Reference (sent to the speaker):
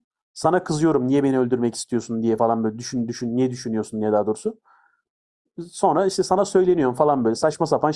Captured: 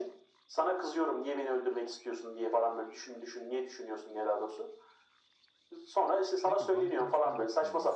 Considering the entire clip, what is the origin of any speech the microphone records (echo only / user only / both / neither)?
both